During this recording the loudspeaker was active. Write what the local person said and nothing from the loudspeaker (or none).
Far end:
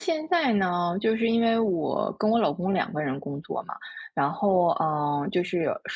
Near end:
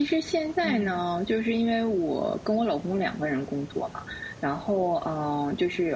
嗯。